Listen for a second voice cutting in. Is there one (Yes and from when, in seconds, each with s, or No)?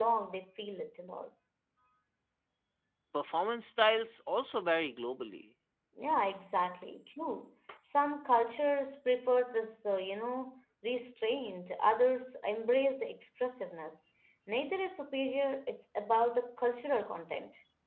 No